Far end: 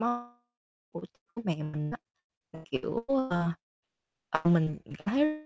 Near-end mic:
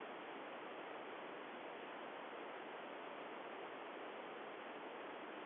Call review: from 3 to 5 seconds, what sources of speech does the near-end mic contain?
neither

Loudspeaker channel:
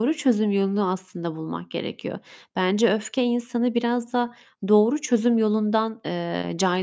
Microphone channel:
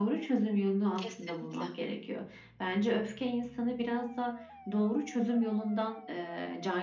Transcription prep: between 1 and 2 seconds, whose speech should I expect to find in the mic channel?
both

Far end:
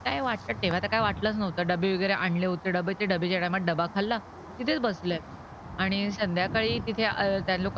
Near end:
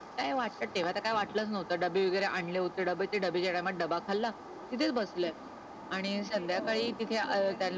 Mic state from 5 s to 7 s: both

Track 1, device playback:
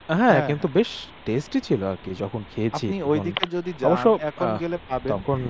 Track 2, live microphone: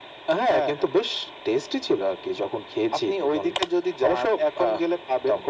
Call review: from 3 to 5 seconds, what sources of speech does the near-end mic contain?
echo only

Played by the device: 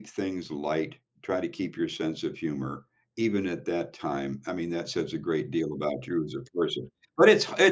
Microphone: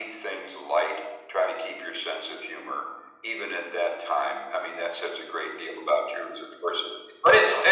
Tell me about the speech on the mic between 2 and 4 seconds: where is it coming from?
echo only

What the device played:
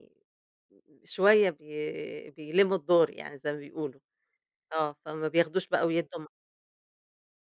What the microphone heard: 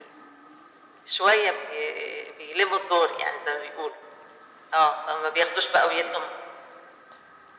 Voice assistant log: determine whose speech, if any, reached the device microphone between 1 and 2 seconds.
echo only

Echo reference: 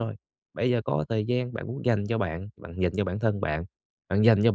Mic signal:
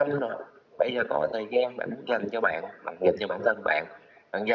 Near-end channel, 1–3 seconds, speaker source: echo only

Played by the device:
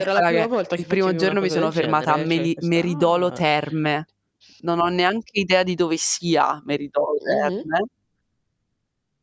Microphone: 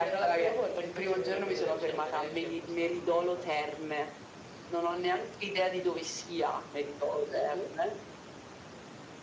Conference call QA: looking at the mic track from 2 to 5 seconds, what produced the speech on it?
echo only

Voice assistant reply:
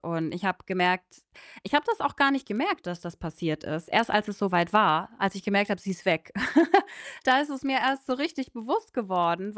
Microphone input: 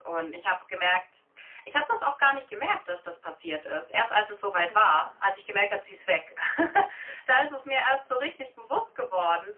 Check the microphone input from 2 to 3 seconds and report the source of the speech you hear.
echo only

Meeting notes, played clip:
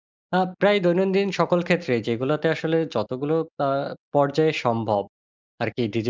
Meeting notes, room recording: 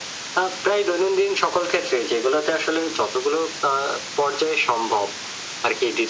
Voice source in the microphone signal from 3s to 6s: echo only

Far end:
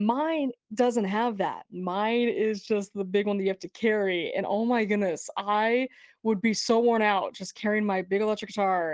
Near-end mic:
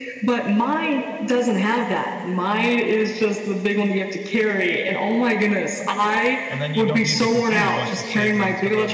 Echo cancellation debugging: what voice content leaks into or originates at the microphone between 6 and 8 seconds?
both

